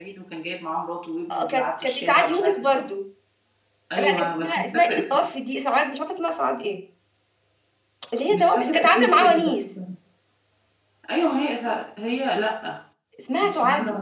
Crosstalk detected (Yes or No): Yes